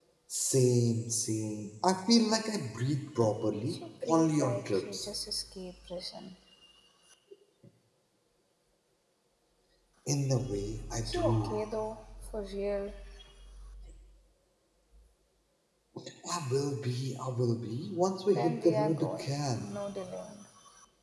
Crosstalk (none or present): present